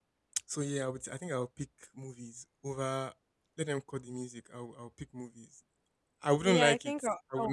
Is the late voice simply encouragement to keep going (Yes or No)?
No